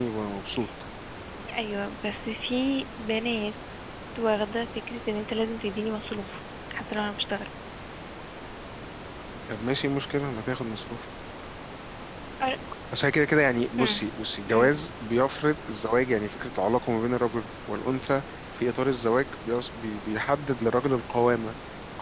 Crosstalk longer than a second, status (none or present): none